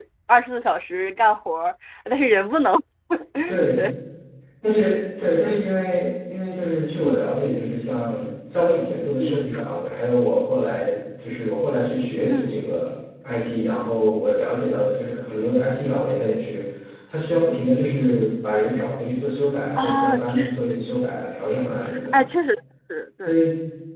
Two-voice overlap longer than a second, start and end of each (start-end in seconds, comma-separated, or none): 19.8-21.0